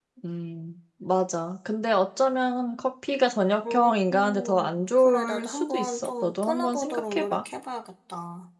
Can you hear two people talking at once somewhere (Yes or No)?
Yes